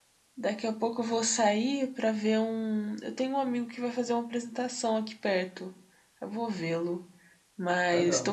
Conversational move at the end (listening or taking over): listening